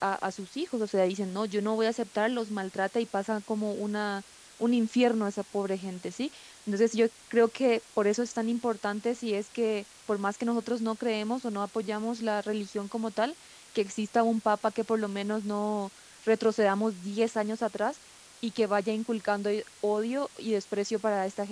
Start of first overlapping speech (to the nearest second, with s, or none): none